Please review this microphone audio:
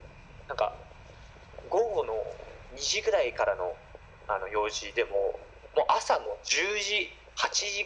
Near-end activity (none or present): none